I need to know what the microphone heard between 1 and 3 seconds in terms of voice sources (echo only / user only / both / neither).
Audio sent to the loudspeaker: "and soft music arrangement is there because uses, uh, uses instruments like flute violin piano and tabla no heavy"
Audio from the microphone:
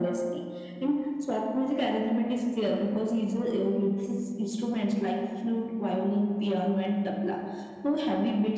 echo only